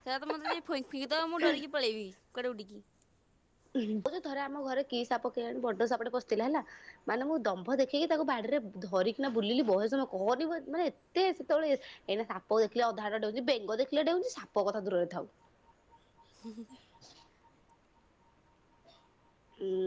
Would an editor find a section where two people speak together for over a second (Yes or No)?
No